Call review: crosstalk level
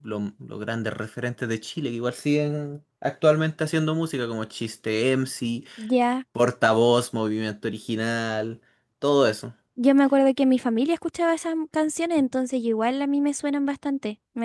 none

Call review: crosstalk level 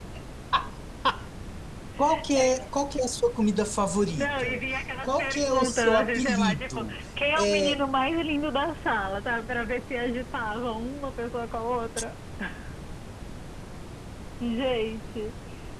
present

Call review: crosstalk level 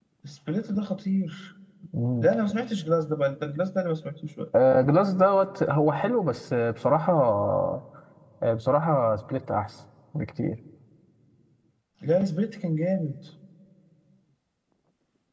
none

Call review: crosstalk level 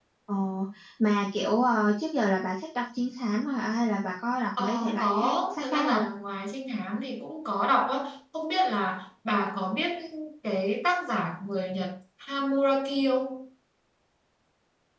present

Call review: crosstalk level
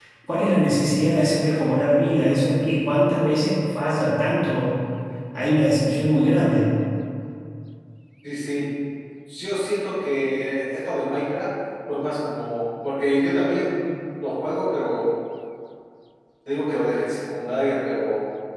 none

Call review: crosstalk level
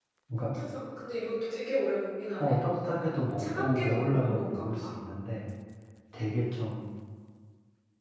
present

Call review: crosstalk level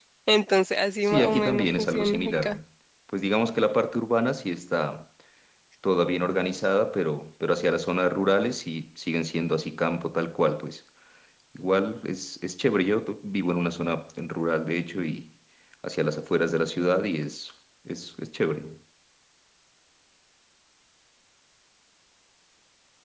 present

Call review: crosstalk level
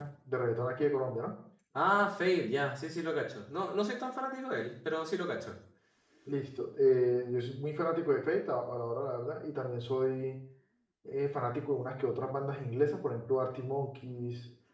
none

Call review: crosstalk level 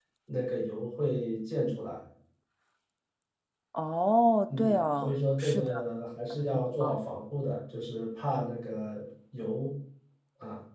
present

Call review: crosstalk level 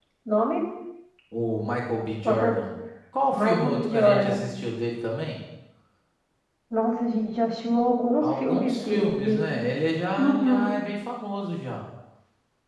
present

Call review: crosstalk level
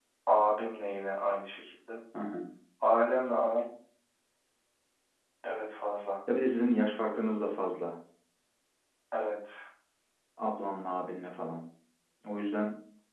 none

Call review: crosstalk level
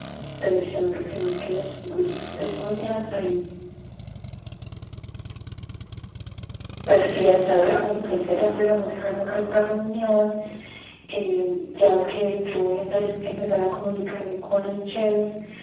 present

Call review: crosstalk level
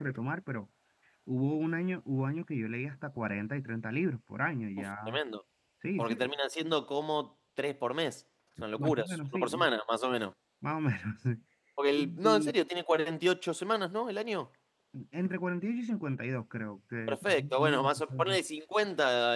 present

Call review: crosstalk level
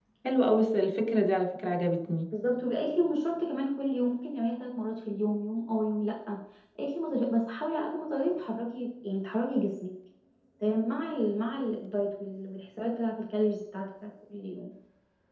none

